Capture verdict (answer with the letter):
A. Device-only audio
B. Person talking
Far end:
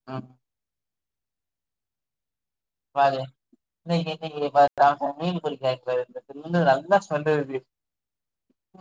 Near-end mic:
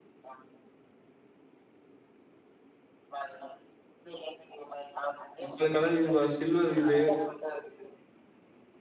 B